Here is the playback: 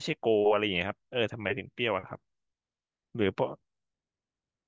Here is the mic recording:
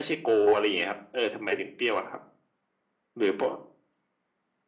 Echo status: present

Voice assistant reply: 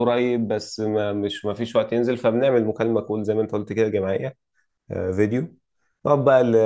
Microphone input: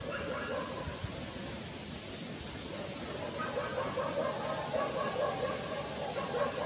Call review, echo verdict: none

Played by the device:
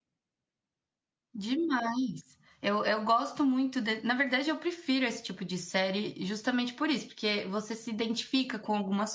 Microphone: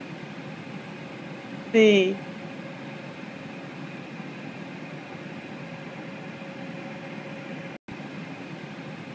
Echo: none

